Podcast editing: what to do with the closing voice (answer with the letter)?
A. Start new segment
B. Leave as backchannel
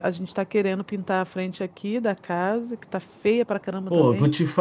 A